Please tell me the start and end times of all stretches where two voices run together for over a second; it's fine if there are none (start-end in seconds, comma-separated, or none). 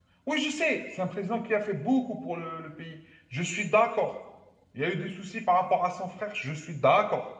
none